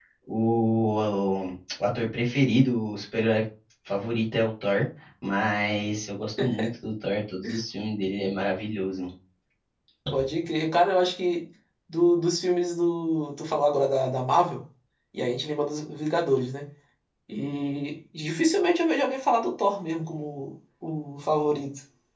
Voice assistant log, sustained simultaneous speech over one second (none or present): none